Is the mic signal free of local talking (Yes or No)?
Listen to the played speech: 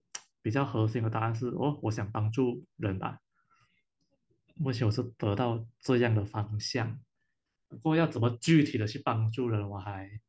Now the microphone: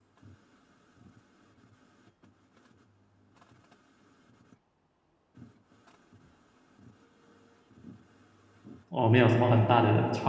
No